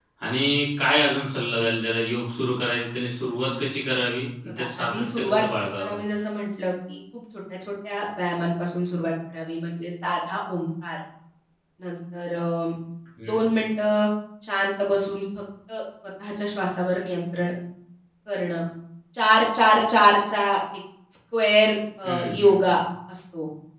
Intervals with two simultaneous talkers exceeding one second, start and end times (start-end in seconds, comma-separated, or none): 4.5-5.9